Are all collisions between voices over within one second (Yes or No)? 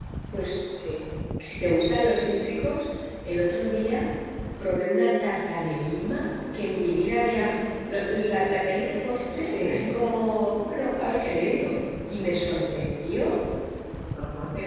Yes